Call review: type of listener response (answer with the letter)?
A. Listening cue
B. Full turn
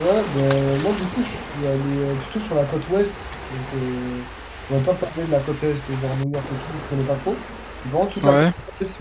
A